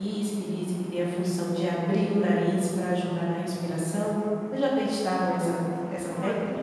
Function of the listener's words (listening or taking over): taking over